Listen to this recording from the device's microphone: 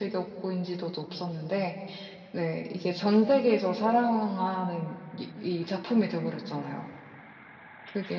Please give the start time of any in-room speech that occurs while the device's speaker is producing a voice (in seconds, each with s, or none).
none